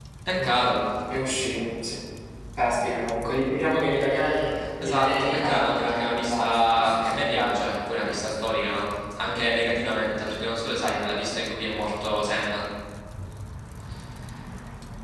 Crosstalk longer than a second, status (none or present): present